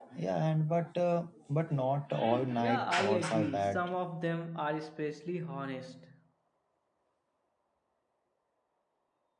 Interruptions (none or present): present